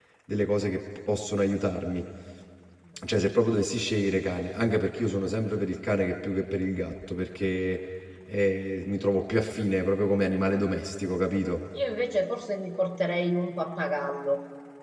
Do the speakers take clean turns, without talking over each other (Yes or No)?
Yes